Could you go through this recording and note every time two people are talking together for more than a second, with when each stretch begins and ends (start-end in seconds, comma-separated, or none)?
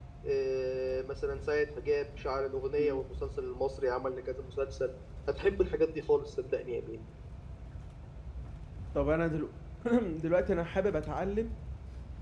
none